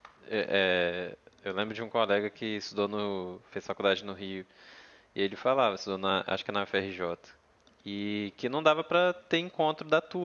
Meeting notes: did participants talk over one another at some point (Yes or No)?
No